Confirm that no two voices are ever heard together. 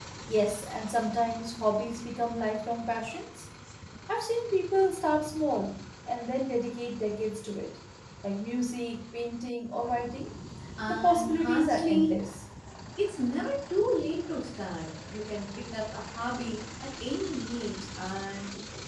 No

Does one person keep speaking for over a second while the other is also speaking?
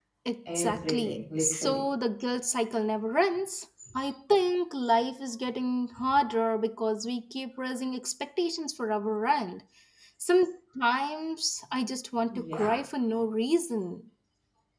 Yes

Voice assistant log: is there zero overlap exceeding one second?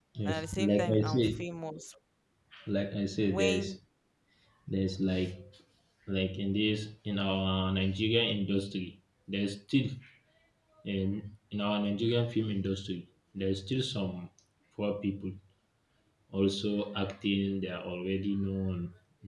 No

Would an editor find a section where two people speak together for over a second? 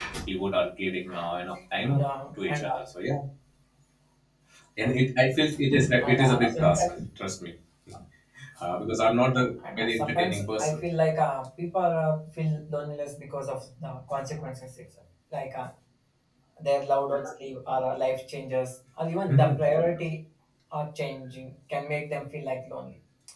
Yes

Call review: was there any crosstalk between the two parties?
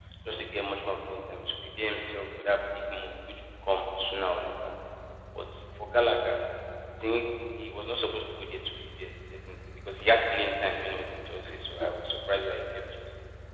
No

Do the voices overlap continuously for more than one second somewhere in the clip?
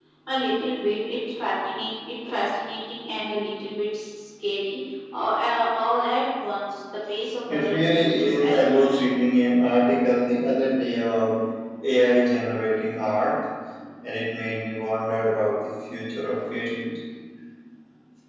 Yes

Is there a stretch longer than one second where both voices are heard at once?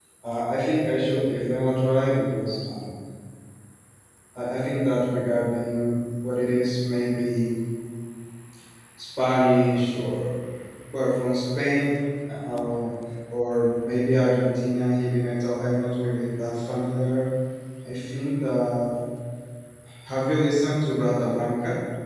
No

